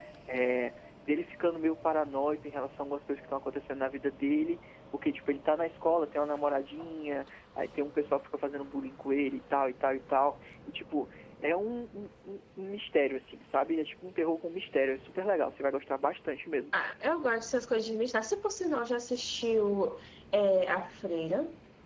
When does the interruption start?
none

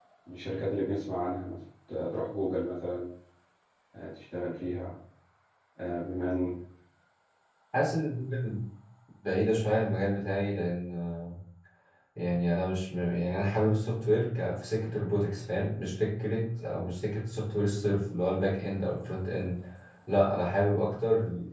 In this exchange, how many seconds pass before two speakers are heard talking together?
none

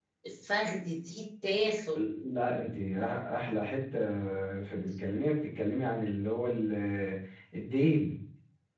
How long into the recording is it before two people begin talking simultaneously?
none

